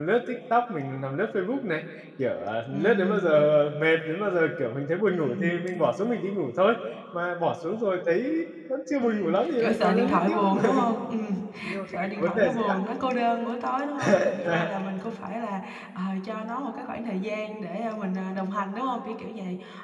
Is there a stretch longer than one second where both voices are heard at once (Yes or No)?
Yes